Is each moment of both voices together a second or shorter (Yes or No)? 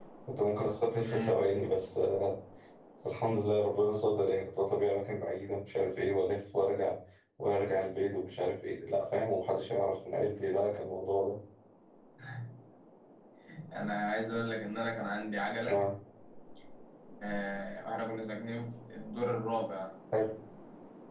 Yes